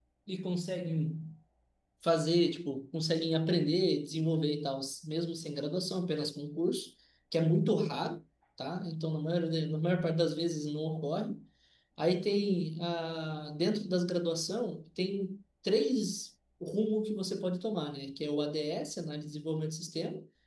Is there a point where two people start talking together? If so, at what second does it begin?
none

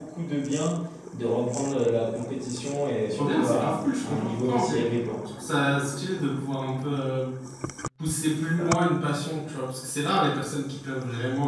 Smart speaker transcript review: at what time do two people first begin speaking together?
3.2 s

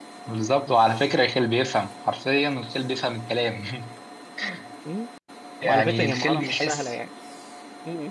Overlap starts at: 5.6 s

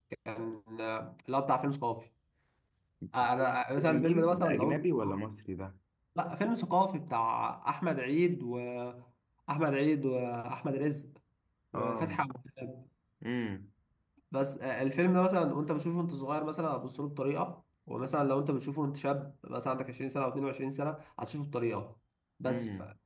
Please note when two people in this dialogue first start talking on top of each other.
3.8 s

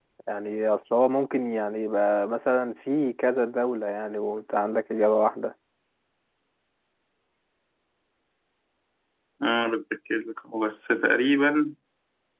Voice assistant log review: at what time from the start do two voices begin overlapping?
none

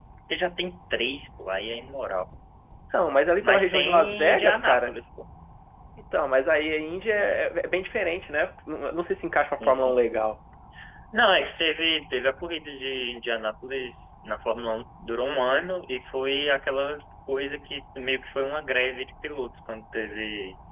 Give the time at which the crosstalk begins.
3.4 s

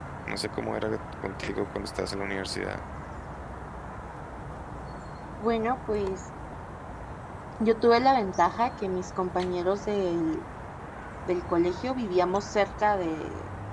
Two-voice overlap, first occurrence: none

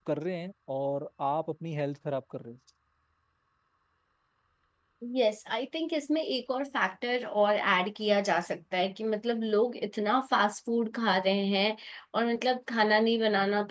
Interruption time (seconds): none

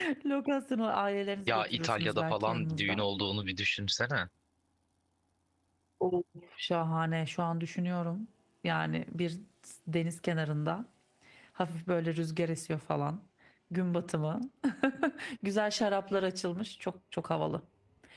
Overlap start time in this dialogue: 1.5 s

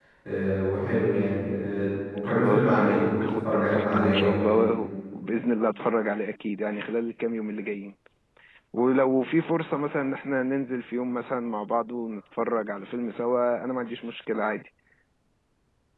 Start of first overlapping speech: 2.2 s

